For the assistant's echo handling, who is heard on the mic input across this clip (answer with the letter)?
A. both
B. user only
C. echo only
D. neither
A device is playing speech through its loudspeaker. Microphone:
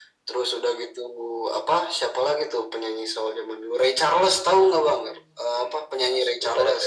C